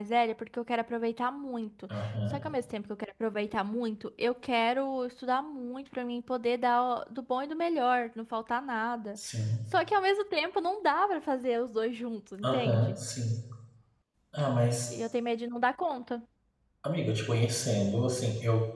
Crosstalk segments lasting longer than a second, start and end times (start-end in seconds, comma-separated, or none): none